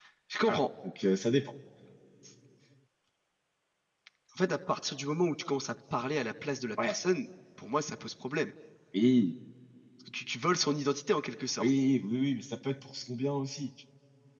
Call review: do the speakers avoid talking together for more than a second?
Yes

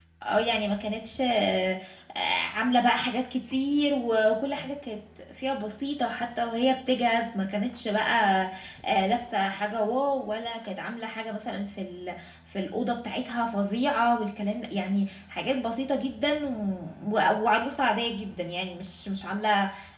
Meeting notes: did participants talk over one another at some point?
No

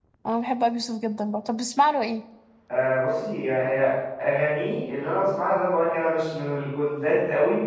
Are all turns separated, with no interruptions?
Yes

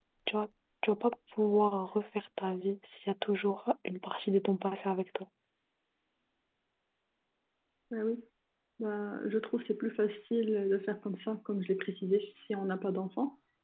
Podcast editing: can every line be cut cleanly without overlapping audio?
Yes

